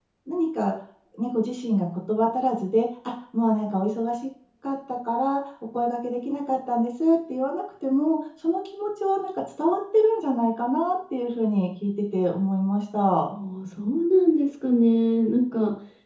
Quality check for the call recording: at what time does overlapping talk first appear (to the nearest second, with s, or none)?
none